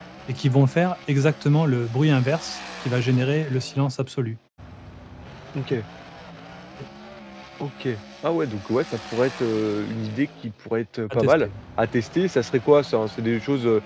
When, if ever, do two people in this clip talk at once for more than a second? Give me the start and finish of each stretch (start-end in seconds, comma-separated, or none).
none